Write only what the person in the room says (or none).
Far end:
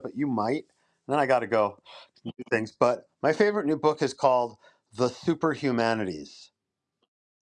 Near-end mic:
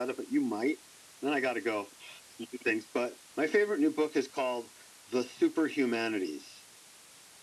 none